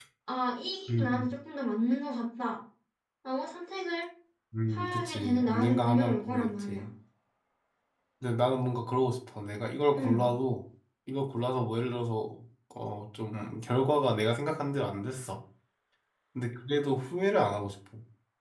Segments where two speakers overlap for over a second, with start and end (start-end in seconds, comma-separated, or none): 4.7-6.9